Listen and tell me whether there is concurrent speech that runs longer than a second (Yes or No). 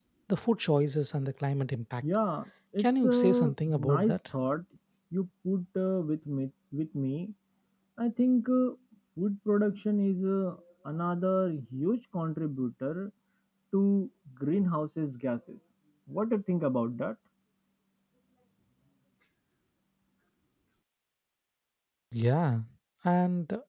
Yes